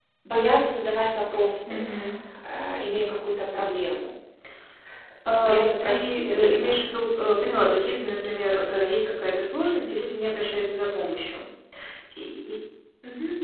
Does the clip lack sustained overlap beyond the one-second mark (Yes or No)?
No